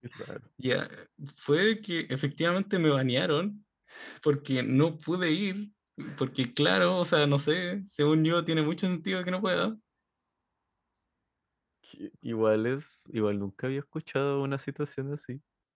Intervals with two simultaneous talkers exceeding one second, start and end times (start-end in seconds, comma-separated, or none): none